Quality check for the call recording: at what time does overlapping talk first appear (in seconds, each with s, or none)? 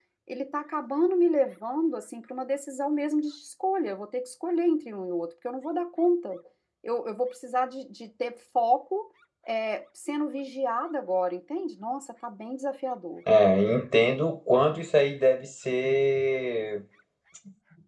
none